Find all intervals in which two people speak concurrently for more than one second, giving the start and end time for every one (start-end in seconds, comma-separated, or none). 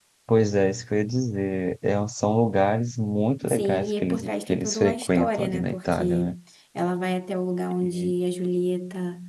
3.5-6.3